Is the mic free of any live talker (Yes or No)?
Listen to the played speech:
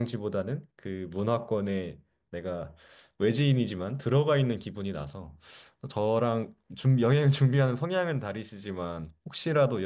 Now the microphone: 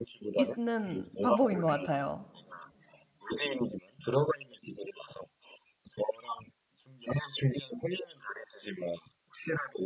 No